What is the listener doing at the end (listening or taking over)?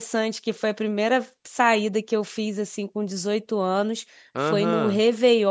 listening